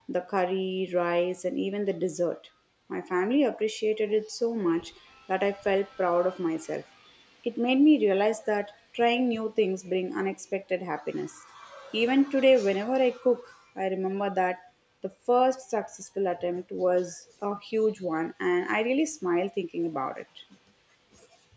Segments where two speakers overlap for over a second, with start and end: none

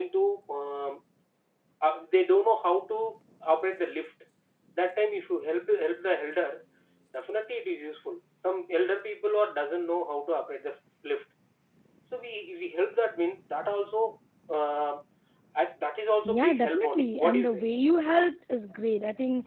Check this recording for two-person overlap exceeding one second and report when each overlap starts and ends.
16.3-17.6

